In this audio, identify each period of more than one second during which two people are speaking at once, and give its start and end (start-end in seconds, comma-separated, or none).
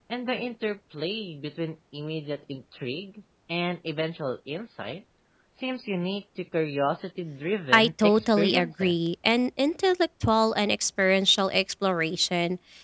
7.7-8.9